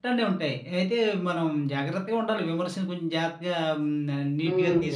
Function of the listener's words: taking over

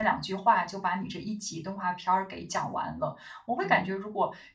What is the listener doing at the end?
listening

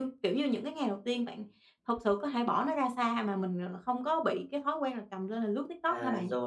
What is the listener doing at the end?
taking over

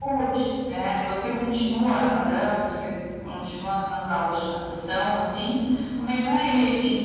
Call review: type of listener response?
listening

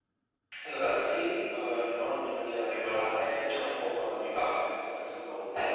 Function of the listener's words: taking over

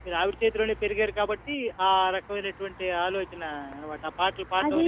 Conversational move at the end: taking over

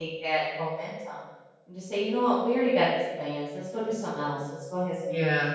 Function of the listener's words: listening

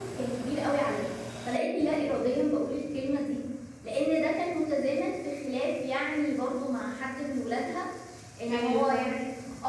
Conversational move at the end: listening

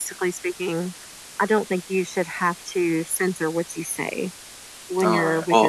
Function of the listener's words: taking over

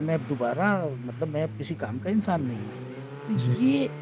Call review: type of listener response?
listening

